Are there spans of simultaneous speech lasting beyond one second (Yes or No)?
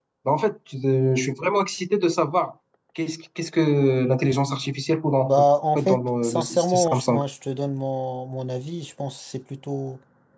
Yes